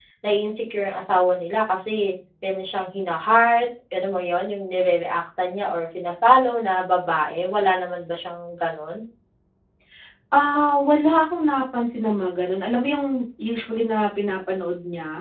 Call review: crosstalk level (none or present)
none